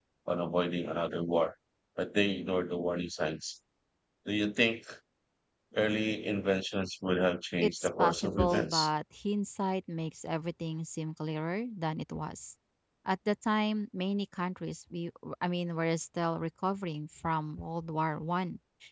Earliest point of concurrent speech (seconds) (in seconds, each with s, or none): 7.6 s